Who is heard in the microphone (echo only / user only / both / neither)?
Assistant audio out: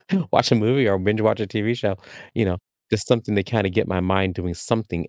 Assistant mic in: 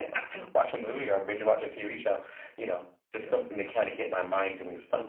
both